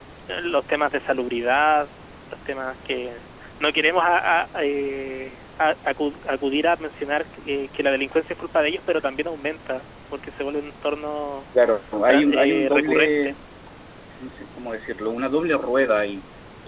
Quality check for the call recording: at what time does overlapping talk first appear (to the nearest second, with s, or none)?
12 s